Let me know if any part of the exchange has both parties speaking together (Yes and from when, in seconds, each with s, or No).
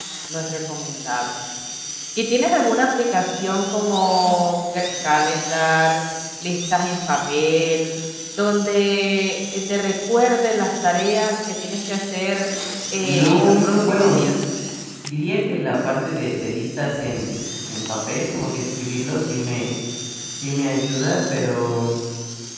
Yes, from 13.0 s